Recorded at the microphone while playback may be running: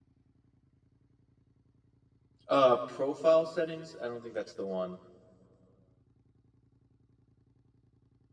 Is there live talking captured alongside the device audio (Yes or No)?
Yes